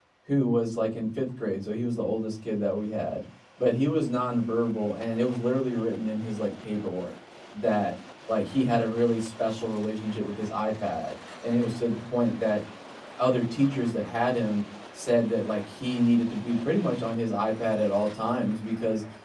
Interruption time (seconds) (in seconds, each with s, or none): none